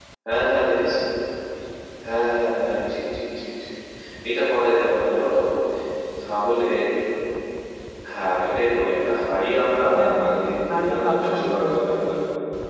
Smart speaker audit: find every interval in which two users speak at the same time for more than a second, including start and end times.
10.8-12.2

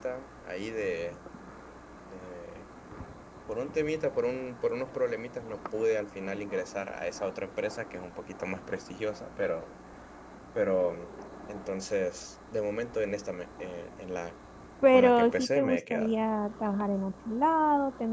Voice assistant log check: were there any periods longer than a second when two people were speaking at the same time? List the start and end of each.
14.9-16.1

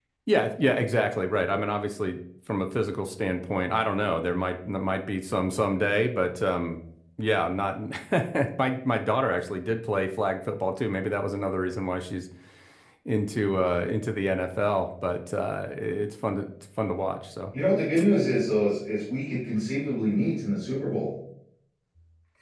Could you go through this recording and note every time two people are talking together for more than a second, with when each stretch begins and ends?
none

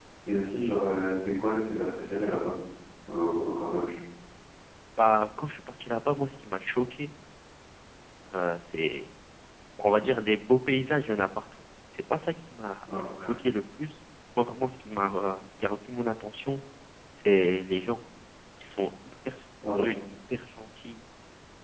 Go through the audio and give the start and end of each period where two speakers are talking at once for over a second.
none

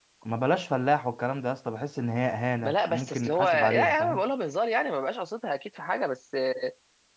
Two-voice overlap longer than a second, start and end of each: 2.6-4.2

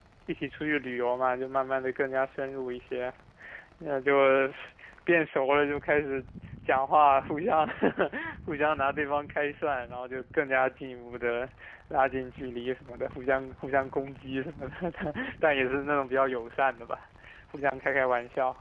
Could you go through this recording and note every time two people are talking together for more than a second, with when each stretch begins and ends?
none

